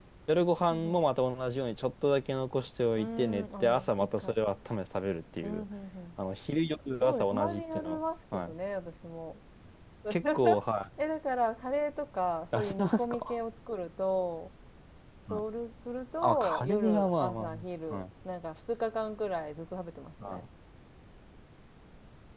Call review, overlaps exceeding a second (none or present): present